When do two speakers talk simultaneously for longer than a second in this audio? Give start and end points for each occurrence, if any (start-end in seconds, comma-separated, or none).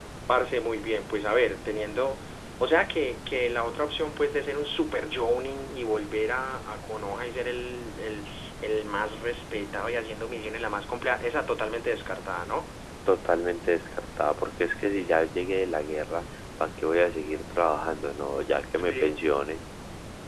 none